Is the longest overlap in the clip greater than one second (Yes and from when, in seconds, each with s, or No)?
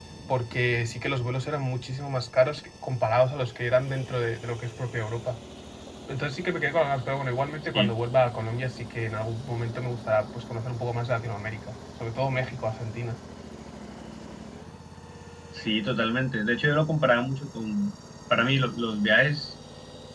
No